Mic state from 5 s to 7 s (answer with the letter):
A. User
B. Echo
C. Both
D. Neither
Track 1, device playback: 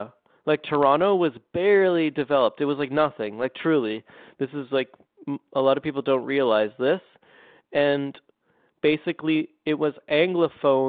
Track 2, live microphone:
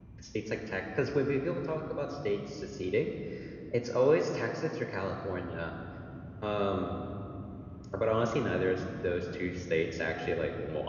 A